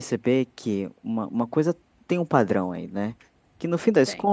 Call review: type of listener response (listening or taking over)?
listening